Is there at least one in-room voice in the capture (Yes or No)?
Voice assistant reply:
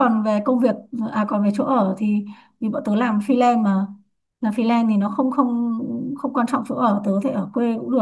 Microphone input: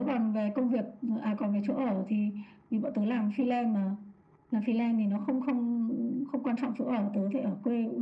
No